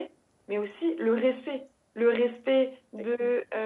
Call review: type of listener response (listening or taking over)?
listening